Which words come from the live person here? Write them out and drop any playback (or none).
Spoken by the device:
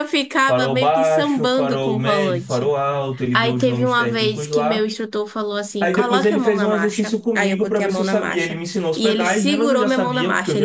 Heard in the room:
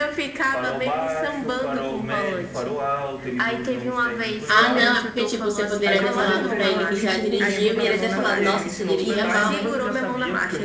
Ah, não, é porque, tipo, você poderia ter falado pra ele que já dirigiu e ele ter falado, nossa, você dirigia mal, hein?